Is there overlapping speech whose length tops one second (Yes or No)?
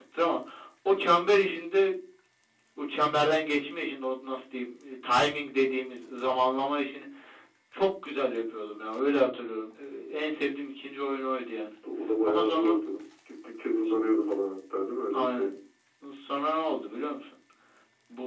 No